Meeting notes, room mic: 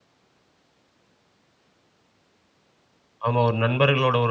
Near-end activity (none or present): present